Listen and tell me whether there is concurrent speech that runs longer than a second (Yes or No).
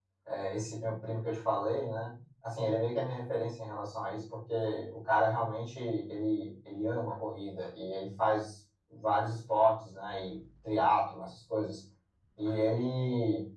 No